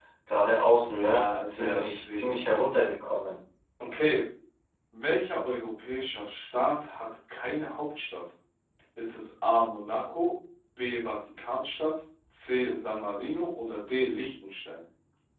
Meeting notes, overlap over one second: present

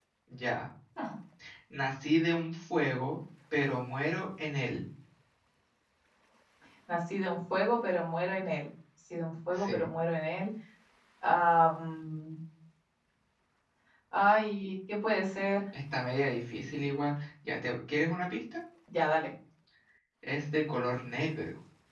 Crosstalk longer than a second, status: none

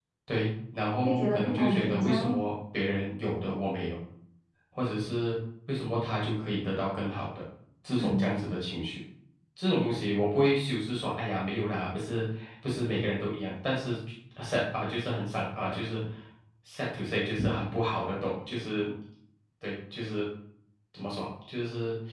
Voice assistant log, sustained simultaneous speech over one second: present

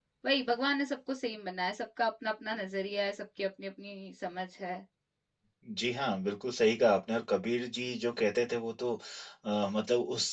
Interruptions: none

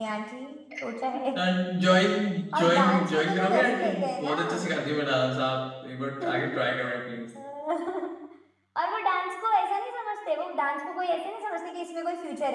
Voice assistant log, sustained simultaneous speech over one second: present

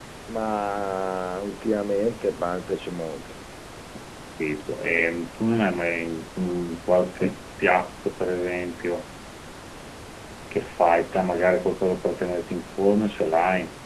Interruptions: none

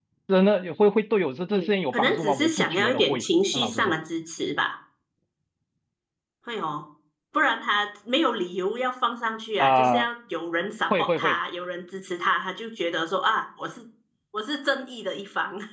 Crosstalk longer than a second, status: present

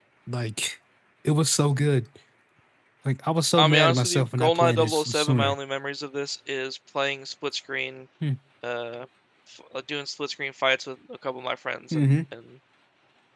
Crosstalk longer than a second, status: present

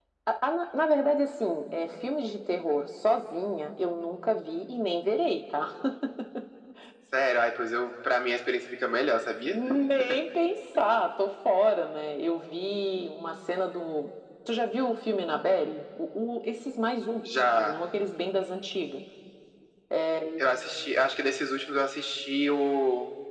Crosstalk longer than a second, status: none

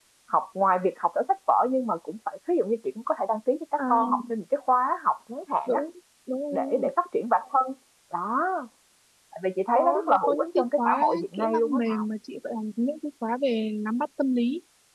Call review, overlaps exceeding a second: present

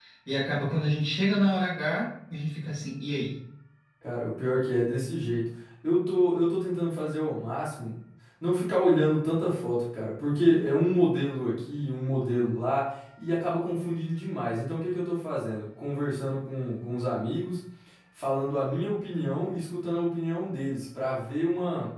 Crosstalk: none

